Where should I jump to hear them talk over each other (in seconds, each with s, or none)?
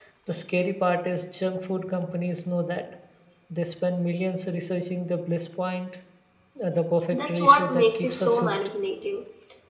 7.1 s